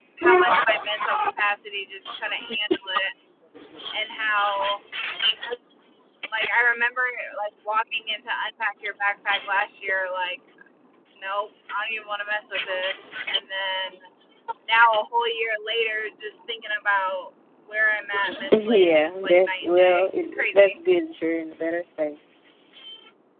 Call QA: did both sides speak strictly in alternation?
No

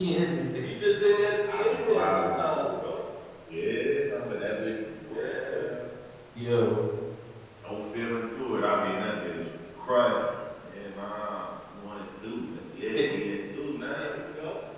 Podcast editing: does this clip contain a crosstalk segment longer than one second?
Yes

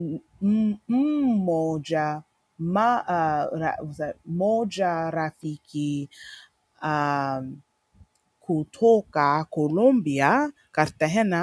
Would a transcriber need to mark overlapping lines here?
No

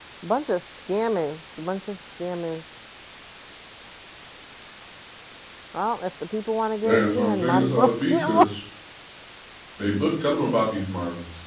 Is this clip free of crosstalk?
No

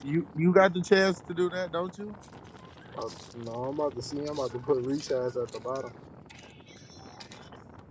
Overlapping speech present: No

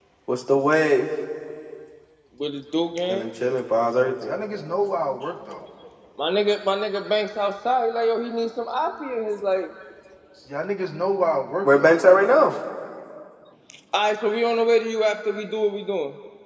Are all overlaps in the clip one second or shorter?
Yes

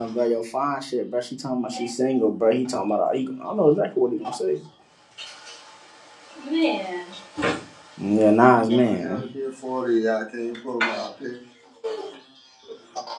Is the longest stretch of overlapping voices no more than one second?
Yes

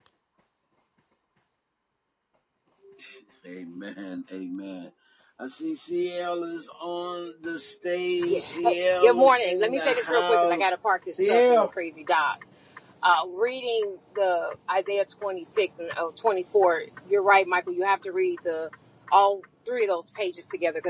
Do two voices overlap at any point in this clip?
Yes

